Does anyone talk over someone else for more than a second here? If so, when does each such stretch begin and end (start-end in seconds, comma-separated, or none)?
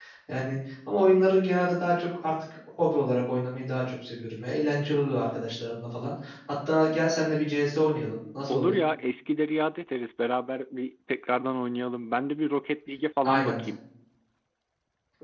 none